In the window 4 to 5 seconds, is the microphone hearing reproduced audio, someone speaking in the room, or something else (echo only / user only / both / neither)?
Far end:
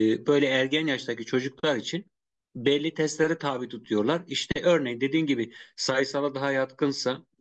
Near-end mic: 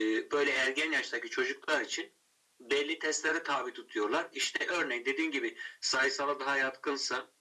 echo only